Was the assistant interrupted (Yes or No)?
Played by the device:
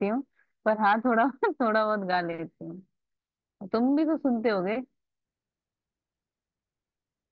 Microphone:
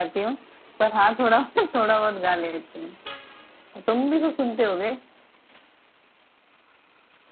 No